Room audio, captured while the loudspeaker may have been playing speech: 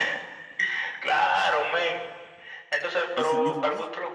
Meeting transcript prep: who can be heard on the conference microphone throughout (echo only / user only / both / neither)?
both